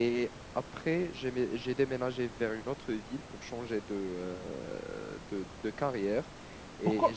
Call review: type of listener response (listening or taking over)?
taking over